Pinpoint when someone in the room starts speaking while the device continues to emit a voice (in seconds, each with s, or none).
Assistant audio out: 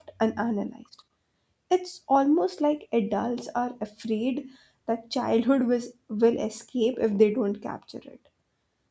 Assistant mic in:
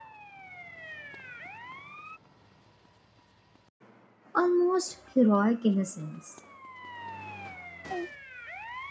4.3 s